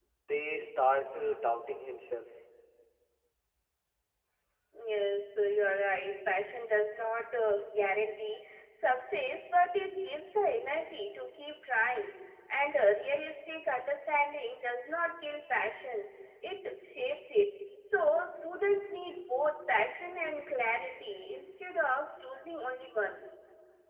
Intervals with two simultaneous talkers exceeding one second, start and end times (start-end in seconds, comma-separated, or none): none